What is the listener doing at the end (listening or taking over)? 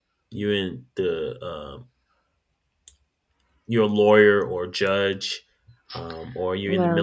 listening